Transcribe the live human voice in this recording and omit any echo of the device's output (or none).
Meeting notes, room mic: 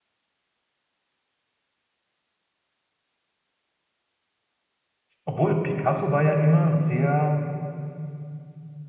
Obwohl, Picasso war ja immer sehr